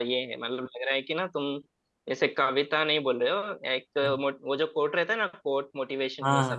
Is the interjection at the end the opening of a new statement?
Yes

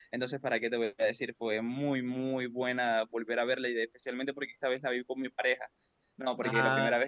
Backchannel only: Yes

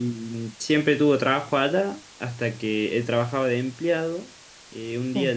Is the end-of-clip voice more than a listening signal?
No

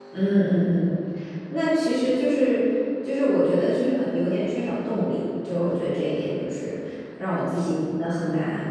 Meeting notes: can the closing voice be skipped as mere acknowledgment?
Yes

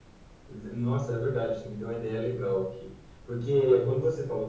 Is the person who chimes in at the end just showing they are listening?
Yes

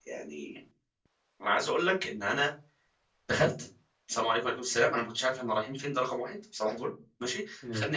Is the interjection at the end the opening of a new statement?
No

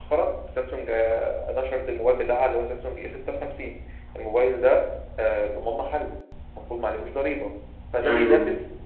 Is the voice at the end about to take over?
No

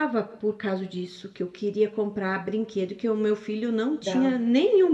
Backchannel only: Yes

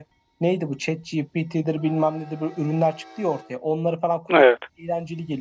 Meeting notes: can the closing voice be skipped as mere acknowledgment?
Yes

